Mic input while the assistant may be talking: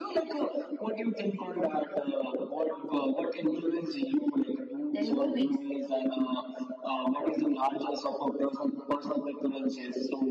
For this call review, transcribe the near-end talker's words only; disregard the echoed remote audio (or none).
than movies.